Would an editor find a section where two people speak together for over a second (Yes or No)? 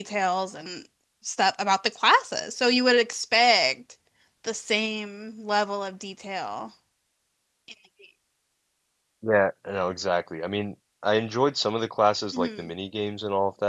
No